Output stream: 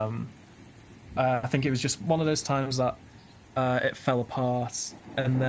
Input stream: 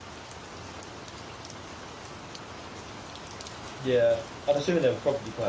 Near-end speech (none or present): present